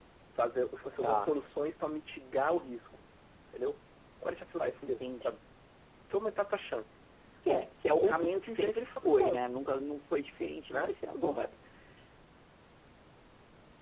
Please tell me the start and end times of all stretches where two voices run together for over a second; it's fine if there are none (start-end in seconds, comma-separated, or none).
8.0-9.4